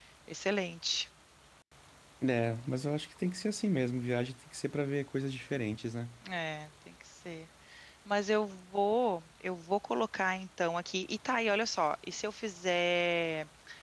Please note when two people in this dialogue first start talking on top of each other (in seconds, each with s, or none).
none